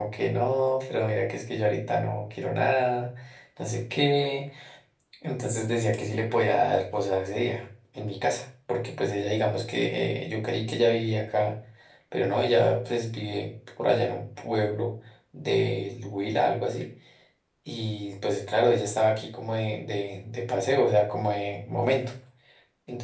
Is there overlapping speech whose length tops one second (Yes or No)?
No